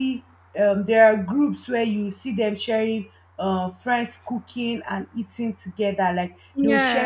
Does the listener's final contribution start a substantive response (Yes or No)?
No